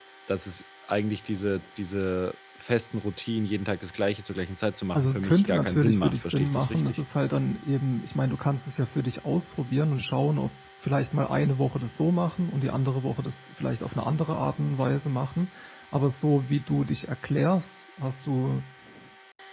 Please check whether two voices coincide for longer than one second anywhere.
Yes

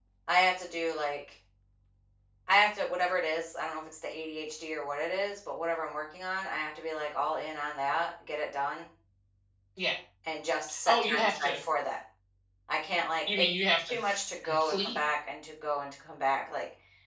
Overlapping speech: Yes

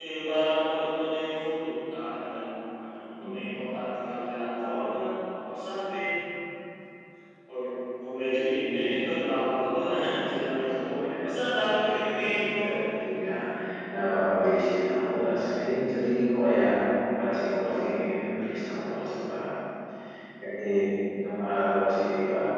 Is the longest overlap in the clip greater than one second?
Yes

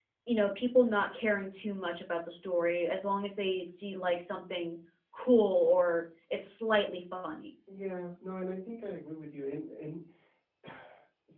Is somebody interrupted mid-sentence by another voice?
No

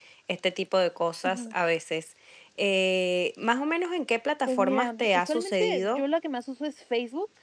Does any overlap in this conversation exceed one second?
Yes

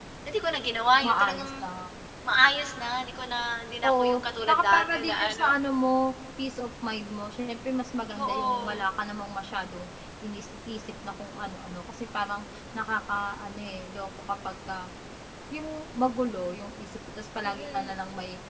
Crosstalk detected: Yes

